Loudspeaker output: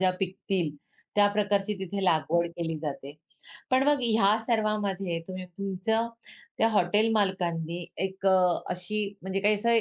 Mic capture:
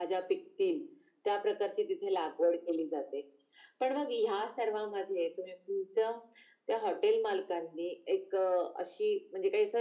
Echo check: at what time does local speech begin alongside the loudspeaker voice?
none

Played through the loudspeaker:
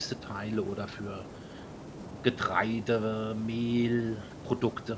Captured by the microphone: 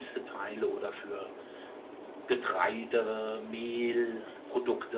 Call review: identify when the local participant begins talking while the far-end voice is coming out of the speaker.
none

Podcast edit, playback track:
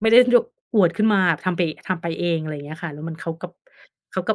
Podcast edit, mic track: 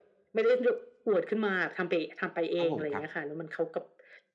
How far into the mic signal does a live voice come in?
2.6 s

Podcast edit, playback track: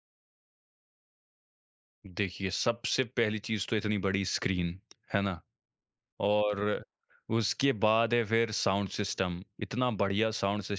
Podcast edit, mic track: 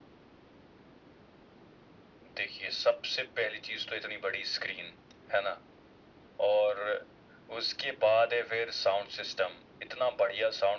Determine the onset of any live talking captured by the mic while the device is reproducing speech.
none

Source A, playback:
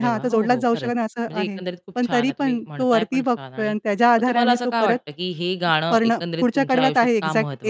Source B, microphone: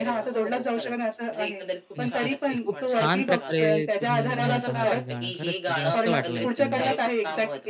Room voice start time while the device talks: 2.0 s

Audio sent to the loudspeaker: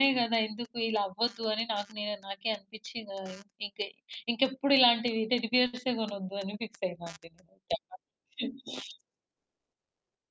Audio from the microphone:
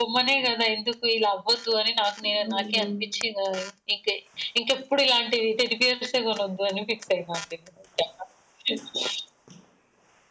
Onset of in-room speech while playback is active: 2.3 s

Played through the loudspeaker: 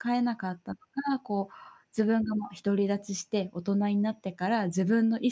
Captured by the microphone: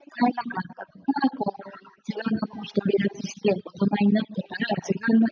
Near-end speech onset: none

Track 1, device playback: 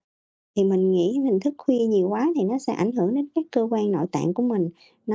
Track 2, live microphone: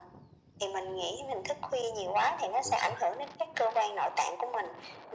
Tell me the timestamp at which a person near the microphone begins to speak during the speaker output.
2.6 s

